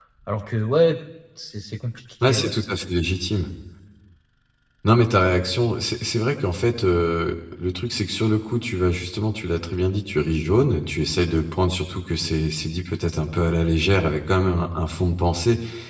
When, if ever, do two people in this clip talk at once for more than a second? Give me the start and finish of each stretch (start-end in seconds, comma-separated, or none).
none